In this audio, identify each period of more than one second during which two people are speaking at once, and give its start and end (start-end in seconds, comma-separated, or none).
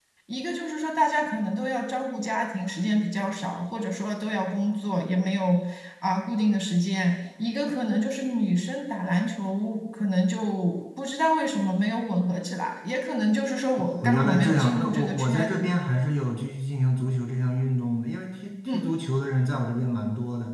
13.8-15.6